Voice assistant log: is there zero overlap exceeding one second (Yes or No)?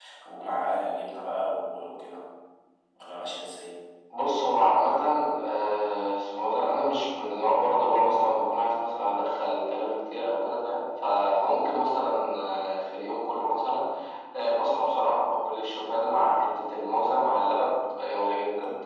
Yes